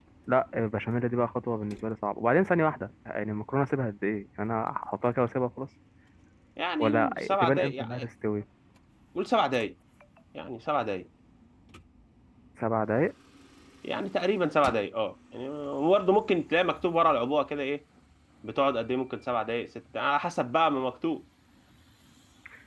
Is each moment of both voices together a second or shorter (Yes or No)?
No